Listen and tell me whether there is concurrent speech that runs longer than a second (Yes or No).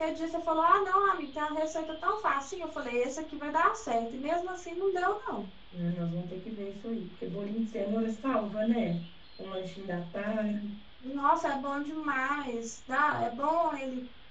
No